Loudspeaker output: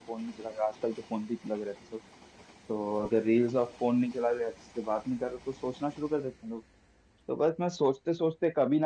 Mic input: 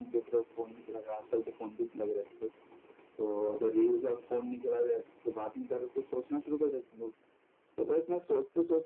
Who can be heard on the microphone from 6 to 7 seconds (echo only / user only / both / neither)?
echo only